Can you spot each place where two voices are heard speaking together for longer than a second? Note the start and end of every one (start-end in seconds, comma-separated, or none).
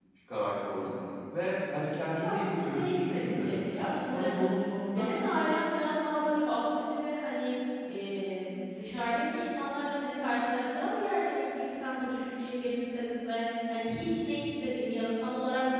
2.1-3.5